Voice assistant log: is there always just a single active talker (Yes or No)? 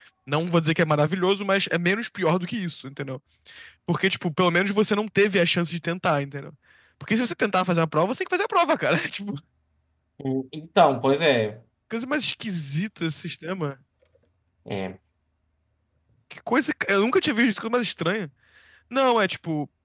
Yes